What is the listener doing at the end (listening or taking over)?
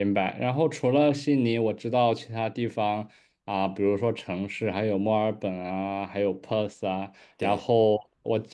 listening